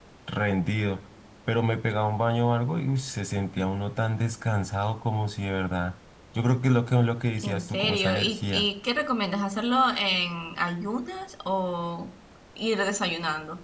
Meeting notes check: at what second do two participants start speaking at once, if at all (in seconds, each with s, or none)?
7.4 s